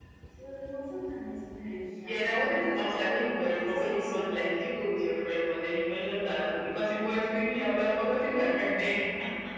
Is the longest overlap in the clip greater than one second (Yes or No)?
Yes